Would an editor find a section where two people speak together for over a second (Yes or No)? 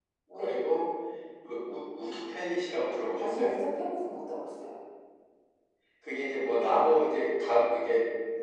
No